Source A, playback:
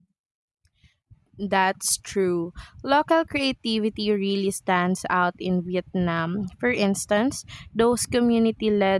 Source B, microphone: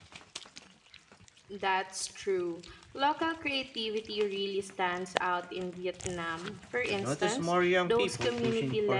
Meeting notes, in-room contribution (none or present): present